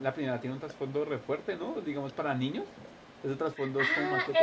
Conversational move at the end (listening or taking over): taking over